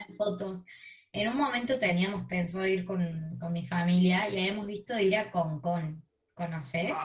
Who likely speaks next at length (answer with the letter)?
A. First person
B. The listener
B